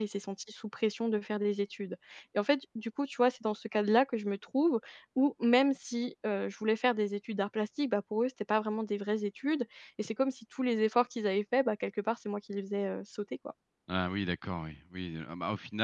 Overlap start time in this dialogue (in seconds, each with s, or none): none